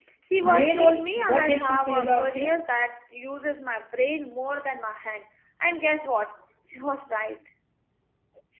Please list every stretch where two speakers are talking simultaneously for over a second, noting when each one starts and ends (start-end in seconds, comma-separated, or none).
0.5-2.6